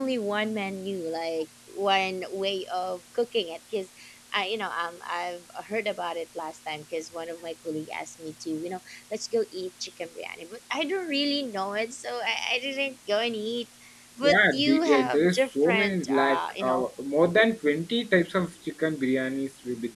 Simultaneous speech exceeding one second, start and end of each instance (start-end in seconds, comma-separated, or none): 14.2-16.9